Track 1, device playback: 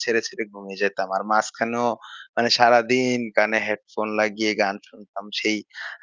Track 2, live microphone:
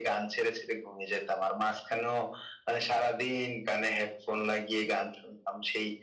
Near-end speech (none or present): none